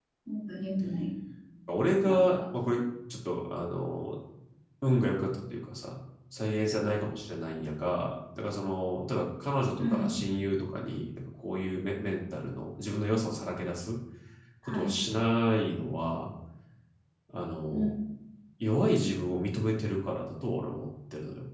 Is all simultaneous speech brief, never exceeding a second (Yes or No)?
Yes